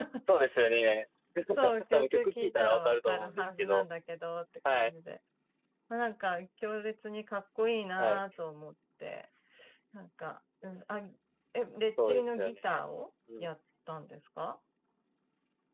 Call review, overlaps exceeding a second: present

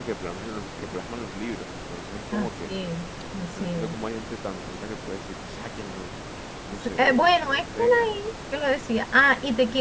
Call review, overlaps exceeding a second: present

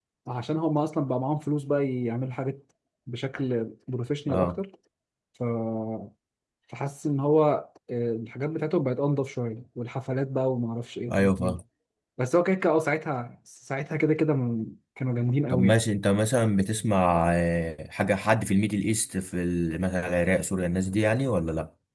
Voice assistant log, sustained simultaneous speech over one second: none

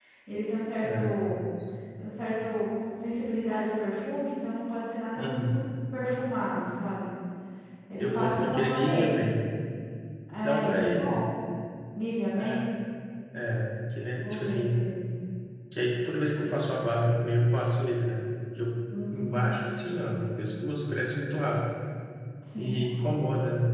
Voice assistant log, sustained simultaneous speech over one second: present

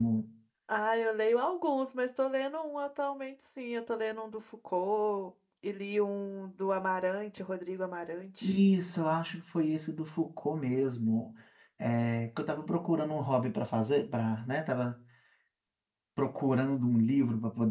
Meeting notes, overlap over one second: none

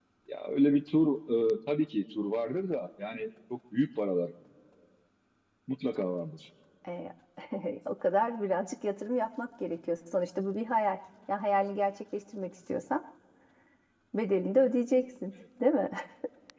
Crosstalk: none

